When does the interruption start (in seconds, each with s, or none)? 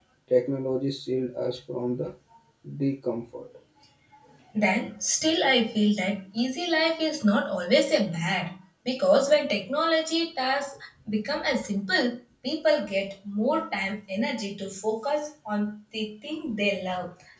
none